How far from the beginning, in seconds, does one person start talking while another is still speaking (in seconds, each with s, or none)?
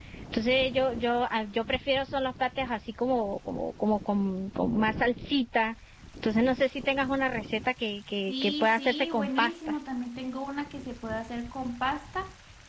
8.3 s